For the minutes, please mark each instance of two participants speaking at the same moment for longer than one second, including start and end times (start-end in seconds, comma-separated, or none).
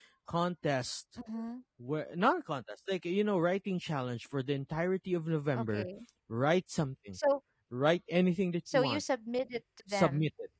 none